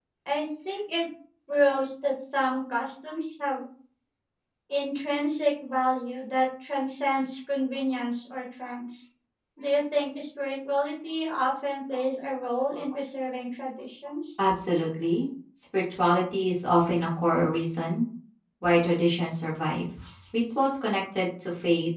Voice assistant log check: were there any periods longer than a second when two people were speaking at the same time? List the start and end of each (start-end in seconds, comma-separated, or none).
none